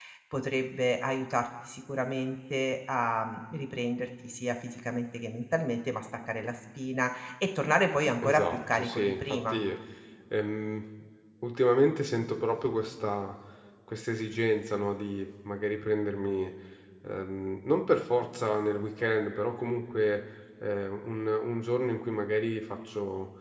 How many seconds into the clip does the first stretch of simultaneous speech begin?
8 s

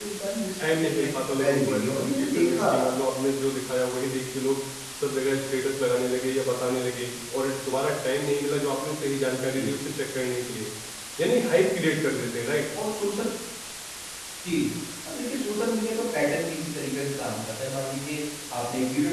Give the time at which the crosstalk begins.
1 s

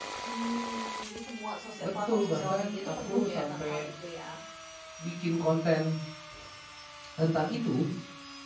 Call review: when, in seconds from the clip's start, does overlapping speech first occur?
2 s

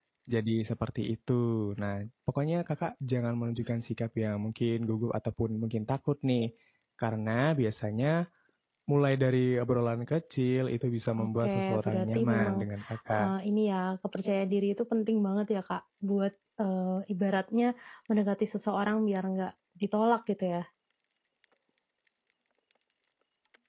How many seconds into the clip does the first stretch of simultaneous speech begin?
11 s

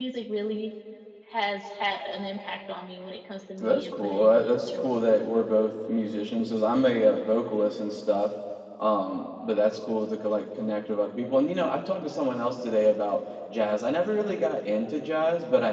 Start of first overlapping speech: 4 s

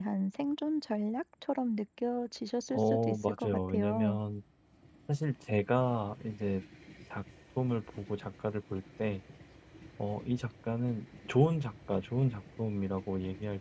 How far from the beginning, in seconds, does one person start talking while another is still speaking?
3 s

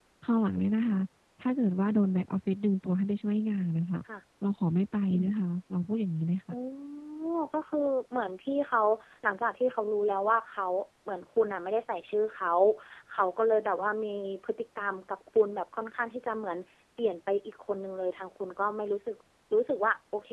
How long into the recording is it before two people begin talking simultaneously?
none

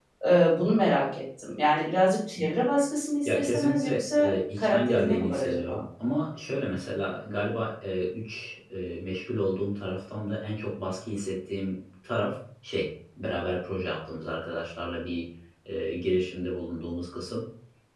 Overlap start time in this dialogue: 3 s

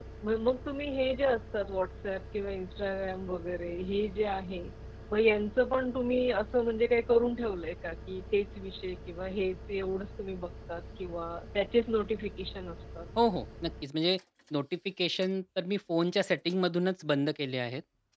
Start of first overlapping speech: none

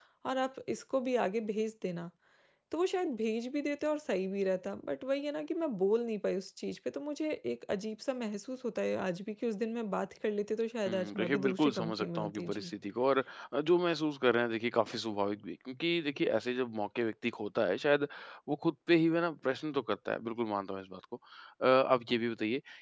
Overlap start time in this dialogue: 11 s

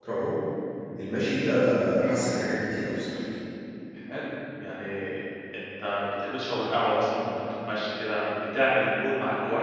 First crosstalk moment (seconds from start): none

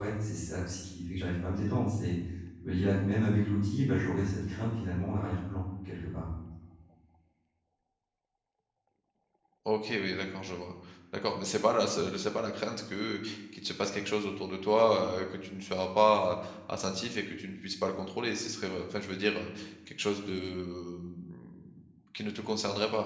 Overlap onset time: none

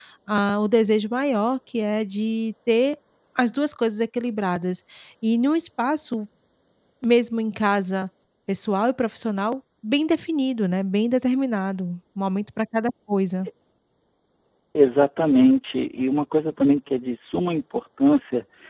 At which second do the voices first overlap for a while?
none

